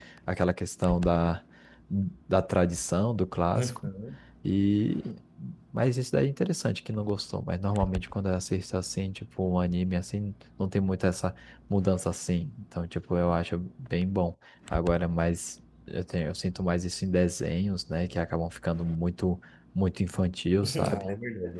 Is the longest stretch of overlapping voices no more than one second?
Yes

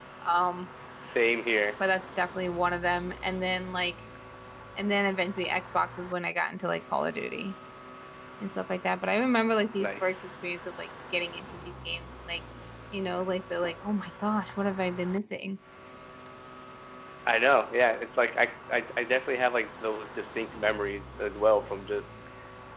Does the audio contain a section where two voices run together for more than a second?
No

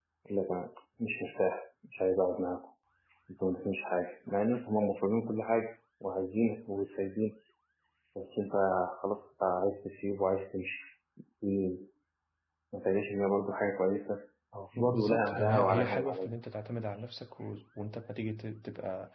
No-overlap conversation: No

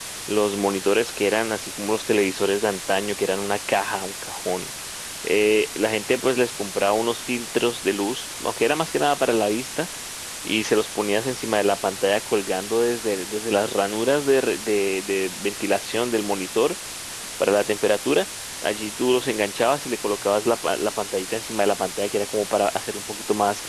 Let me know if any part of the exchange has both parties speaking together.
No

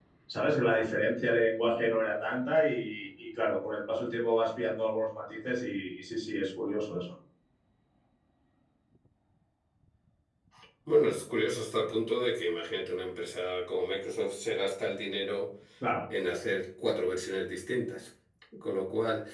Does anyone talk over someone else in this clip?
No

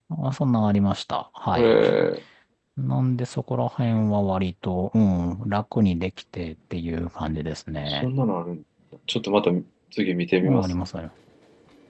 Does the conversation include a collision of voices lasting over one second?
No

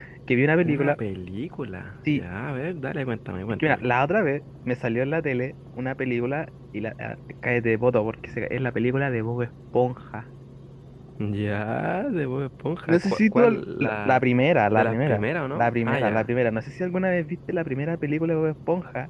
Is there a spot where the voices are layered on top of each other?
Yes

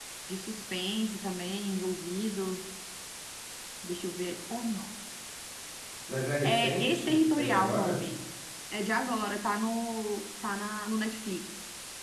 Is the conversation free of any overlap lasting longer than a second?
No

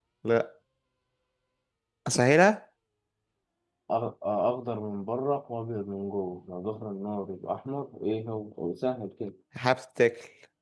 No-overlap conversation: Yes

